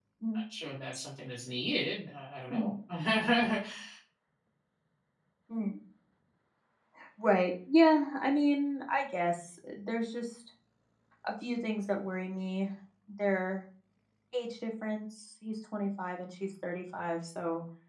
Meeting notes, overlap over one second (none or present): none